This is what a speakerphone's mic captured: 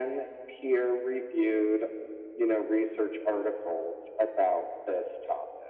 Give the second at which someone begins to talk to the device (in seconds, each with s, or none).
none